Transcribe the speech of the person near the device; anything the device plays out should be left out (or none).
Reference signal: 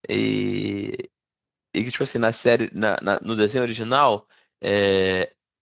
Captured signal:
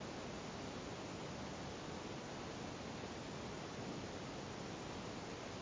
none